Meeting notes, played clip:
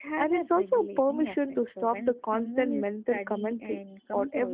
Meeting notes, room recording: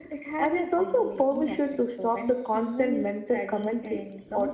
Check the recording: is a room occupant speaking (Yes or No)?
No